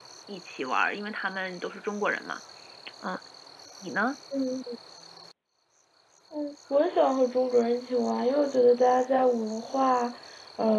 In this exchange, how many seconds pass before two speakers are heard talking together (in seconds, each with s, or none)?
none